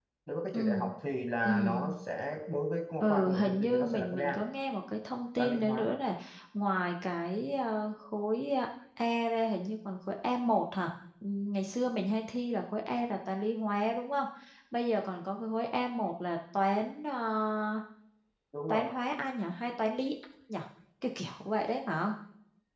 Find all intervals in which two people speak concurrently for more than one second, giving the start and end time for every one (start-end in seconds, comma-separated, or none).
3.0-4.4